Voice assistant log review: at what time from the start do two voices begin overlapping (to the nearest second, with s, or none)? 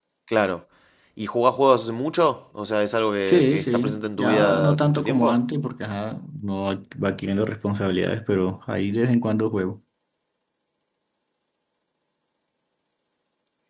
3 s